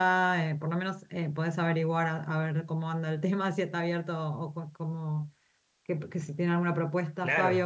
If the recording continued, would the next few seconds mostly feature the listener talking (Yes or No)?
Yes